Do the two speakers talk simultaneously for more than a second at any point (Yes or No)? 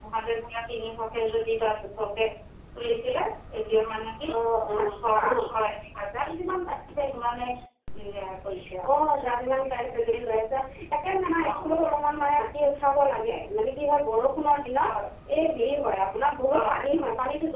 No